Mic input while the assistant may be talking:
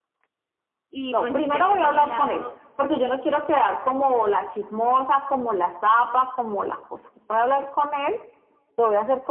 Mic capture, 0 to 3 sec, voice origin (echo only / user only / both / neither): both